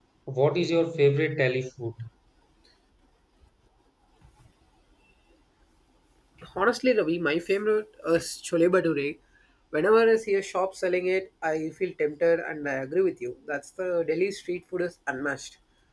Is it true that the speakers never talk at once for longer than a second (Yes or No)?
Yes